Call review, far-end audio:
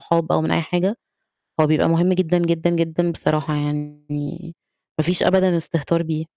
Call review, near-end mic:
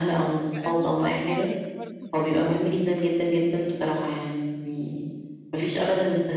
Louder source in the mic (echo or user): echo